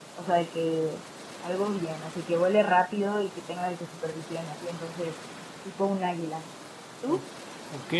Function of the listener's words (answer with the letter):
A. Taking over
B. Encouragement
A